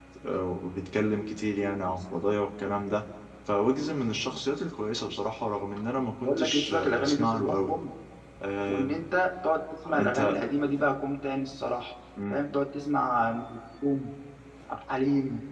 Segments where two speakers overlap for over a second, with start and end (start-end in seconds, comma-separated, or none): 6.2-7.6